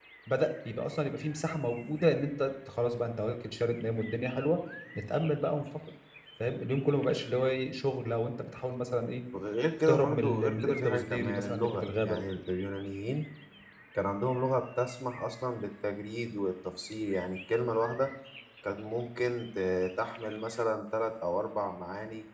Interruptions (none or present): present